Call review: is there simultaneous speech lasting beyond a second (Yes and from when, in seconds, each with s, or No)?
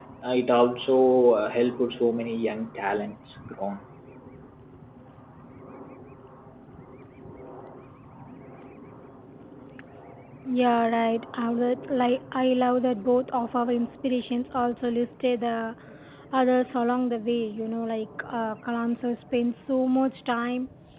No